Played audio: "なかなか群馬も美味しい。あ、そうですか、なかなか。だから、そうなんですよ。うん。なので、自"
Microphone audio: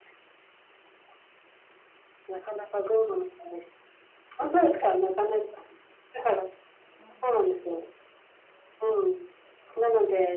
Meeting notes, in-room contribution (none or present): present